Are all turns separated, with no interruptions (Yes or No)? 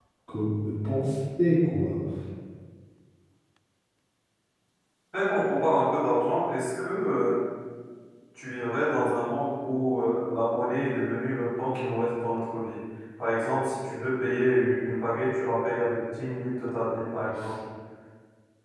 Yes